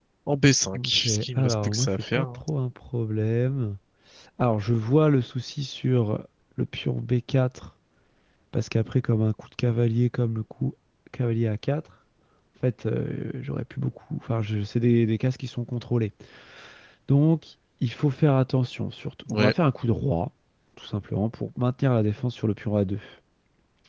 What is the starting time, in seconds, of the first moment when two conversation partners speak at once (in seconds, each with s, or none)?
0.7 s